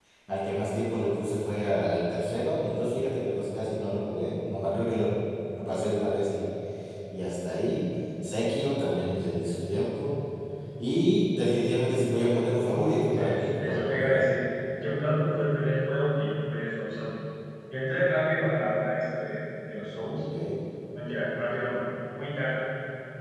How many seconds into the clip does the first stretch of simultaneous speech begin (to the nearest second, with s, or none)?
13 s